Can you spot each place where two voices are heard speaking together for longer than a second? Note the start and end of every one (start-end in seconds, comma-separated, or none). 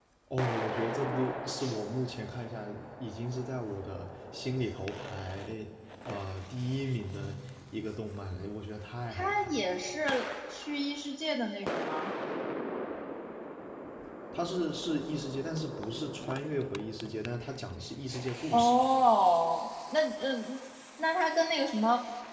none